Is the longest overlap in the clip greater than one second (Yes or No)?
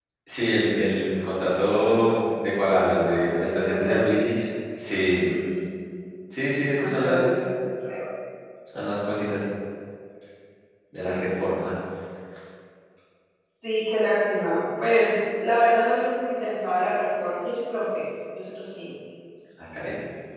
Yes